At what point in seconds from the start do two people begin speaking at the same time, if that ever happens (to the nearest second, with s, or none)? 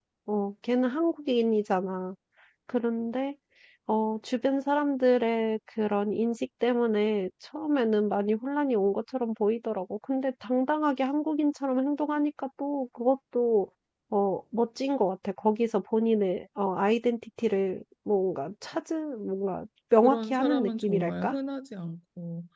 20 s